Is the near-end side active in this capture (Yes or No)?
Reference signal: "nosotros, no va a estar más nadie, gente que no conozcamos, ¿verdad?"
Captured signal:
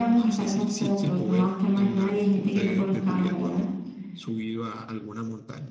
Yes